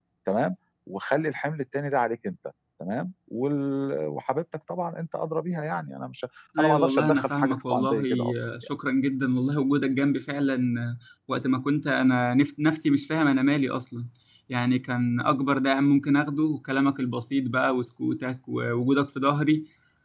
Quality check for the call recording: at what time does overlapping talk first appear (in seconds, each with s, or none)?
6.6 s